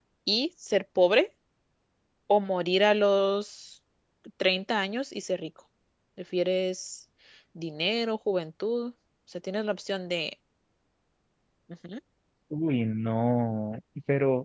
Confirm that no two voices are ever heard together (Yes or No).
Yes